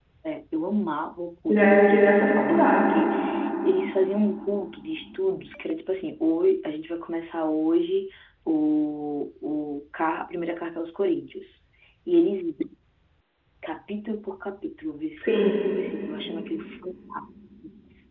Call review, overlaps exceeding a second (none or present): present